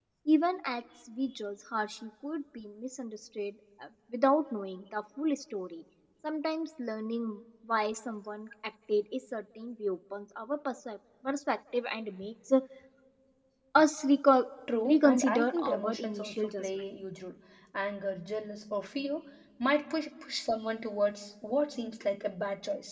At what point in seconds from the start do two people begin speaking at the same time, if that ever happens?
14.7 s

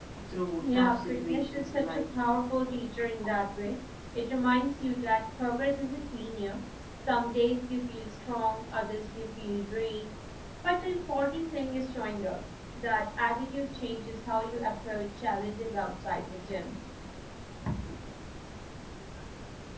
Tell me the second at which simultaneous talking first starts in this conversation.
0.6 s

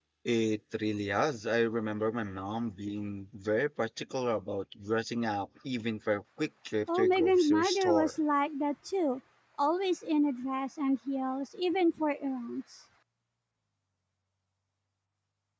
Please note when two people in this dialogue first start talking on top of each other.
6.9 s

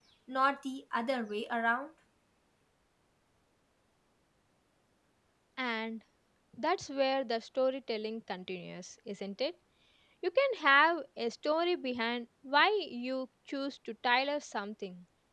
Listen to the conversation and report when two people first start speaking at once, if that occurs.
none

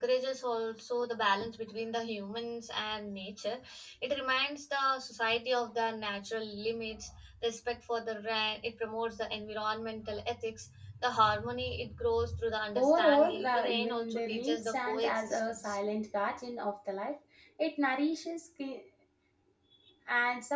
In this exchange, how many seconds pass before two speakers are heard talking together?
12.8 s

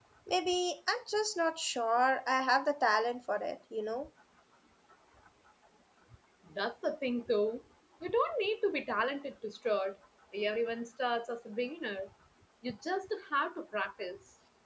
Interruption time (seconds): none

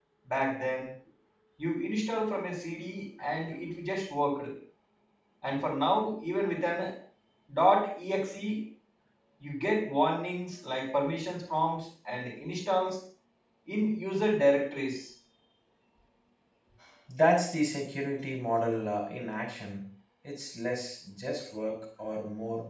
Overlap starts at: none

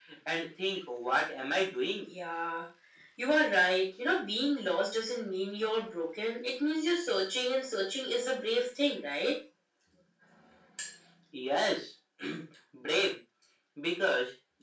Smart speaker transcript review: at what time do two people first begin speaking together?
none

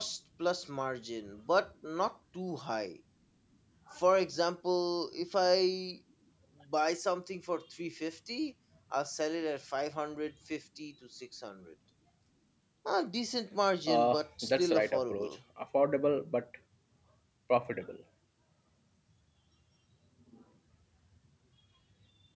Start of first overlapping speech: 13.9 s

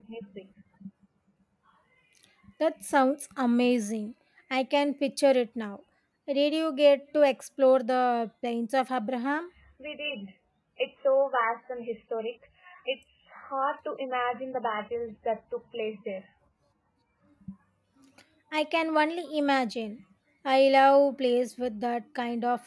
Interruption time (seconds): none

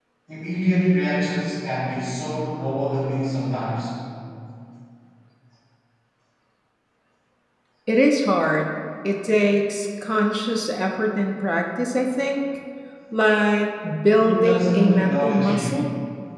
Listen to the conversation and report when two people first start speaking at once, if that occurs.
14.1 s

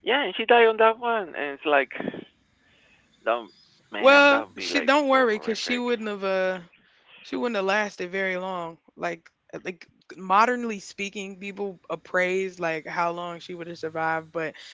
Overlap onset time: 4.0 s

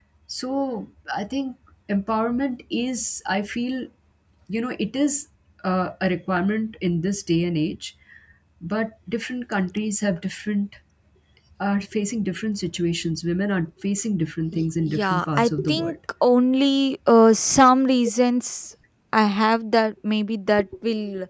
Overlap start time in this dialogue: 14.5 s

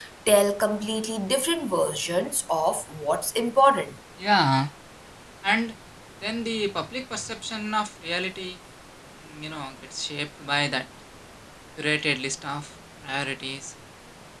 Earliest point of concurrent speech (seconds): none

